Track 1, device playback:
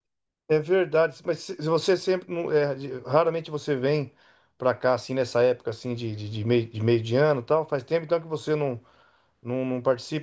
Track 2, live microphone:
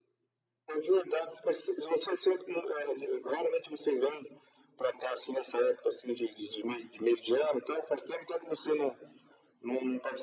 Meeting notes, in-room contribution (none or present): none